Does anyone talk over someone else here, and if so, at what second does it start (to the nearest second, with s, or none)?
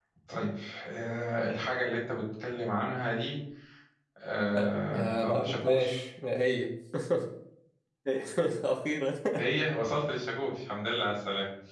5 s